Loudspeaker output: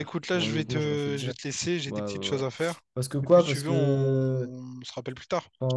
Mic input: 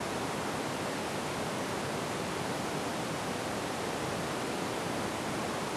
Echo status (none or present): none